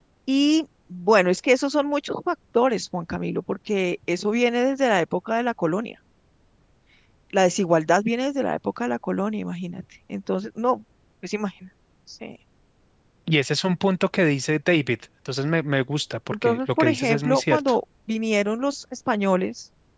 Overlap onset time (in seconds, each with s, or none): 16.3 s